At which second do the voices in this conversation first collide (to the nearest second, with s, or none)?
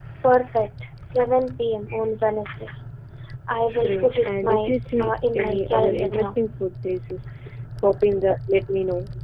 4 s